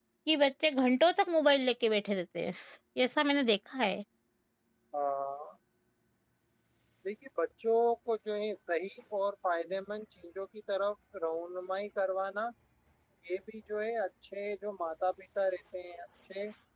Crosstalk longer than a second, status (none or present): none